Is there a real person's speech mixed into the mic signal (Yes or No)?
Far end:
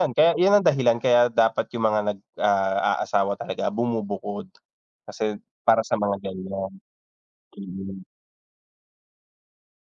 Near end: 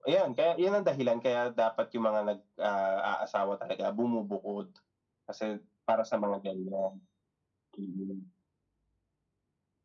No